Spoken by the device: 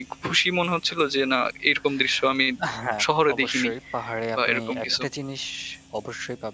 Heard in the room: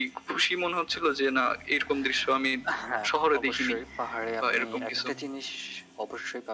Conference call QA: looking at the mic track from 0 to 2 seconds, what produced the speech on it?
echo only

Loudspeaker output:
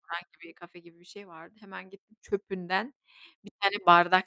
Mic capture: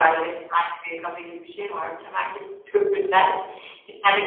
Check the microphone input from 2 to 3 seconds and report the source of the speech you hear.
echo only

